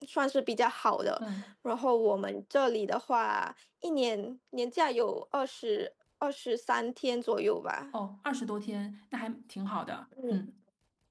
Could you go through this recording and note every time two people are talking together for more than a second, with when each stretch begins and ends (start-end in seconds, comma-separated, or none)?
none